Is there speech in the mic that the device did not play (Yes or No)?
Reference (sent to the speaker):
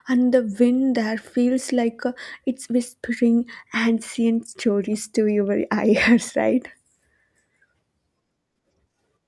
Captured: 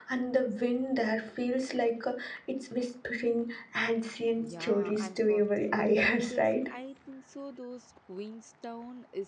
Yes